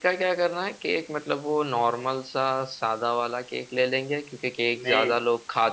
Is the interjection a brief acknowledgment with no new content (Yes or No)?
Yes